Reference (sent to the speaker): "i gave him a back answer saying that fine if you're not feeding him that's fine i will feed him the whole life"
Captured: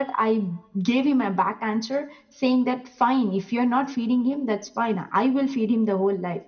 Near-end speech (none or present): none